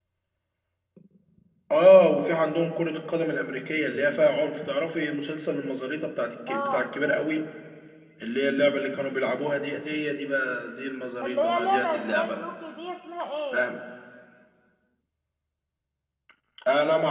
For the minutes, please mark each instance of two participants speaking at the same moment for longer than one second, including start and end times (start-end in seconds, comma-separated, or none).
11.2-12.5